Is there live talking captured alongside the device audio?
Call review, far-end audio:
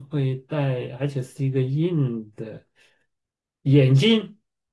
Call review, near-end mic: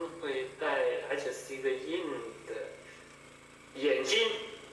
No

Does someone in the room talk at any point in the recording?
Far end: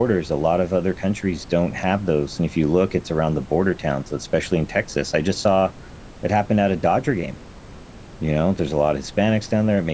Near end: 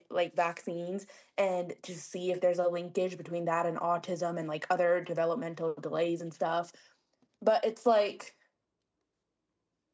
Yes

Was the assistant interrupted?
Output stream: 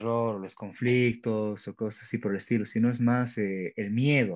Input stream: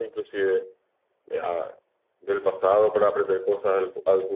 Yes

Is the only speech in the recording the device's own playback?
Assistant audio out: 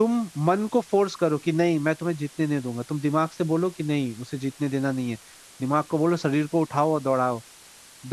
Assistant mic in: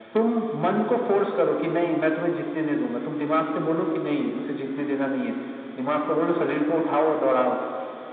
Yes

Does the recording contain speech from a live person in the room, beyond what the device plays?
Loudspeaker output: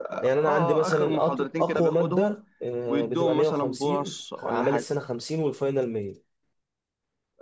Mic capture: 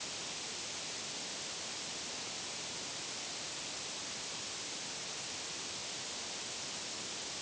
No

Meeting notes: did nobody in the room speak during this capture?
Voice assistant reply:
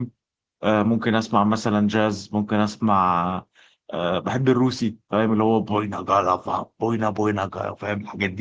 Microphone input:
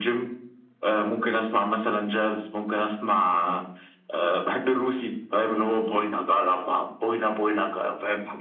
Yes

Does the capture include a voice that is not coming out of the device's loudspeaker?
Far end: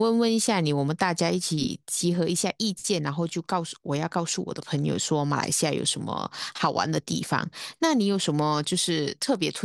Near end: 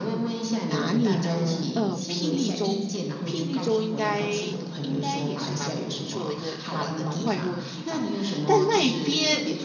Yes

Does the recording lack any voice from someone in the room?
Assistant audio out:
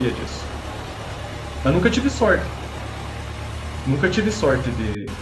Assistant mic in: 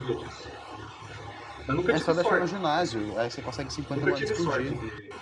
No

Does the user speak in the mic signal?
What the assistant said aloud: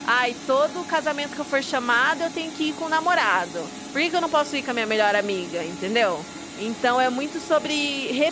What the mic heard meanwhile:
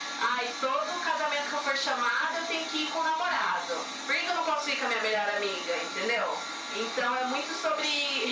No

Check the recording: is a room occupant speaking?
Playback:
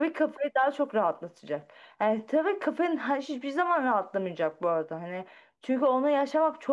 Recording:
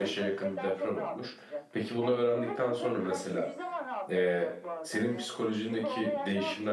Yes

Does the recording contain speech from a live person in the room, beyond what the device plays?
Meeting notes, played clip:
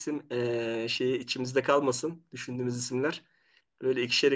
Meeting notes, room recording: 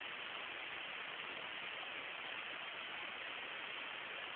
No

